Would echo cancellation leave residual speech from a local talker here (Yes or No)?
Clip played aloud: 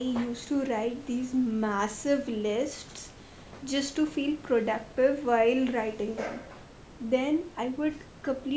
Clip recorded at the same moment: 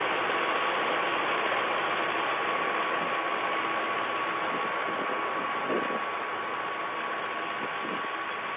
No